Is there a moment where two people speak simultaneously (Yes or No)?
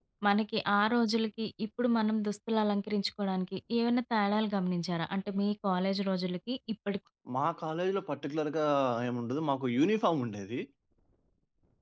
No